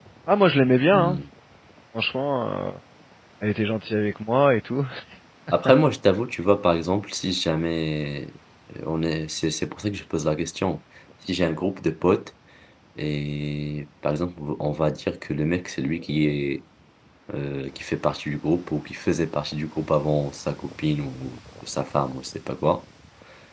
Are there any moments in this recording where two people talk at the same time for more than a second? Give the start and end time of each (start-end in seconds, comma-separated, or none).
none